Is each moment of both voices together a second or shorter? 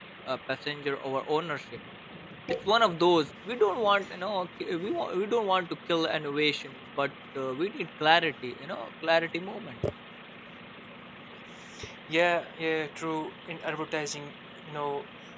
Yes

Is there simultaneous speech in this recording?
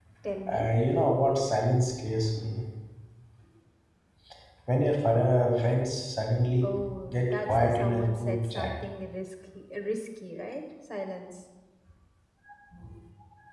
Yes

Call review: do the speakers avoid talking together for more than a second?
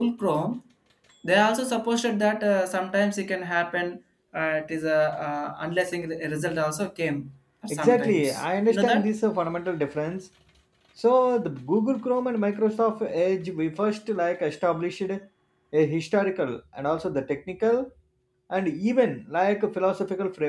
No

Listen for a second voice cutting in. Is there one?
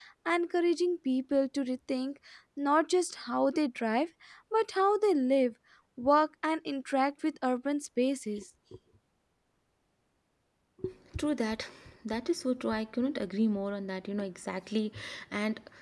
No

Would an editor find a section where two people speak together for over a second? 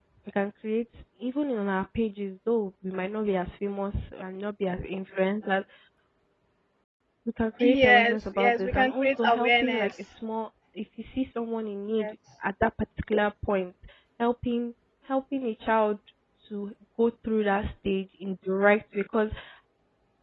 Yes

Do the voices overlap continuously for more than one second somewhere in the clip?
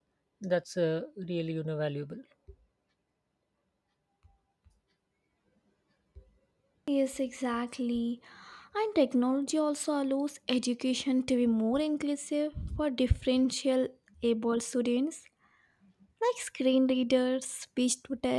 No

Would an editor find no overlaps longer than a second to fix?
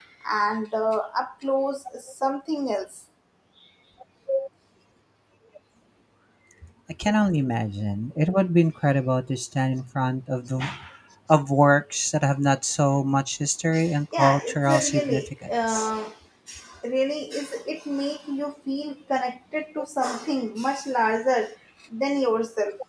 No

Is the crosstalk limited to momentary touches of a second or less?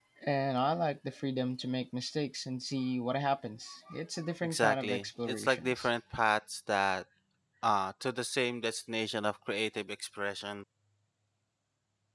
No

